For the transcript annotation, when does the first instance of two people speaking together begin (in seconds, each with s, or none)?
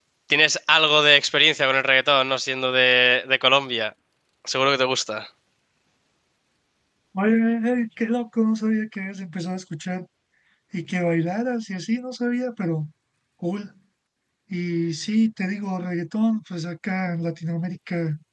none